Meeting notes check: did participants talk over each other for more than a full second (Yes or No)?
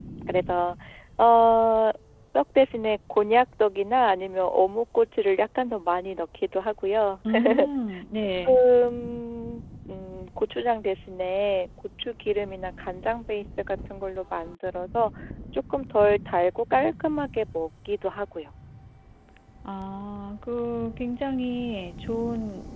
No